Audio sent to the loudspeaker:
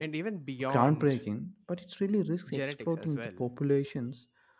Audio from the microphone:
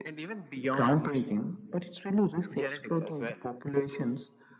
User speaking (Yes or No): No